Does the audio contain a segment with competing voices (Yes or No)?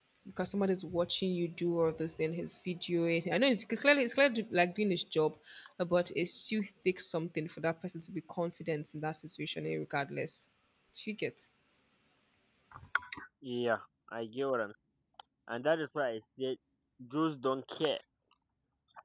No